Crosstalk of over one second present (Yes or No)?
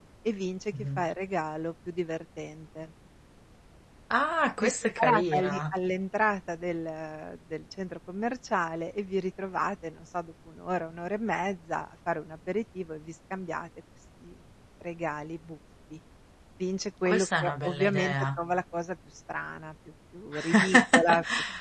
Yes